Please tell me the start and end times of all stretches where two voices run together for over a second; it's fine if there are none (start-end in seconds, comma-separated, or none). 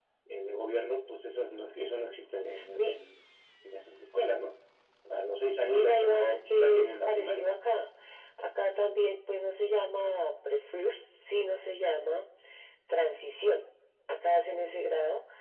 5.7-7.5